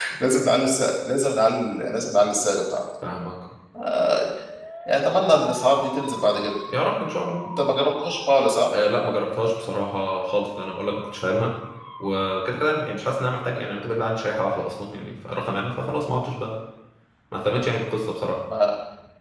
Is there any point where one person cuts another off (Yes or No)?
No